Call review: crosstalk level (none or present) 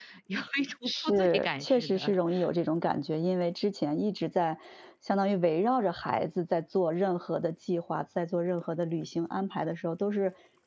present